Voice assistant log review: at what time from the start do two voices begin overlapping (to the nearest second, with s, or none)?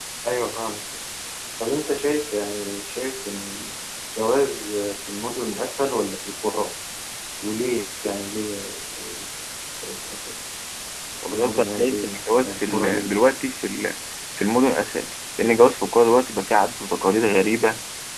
11 s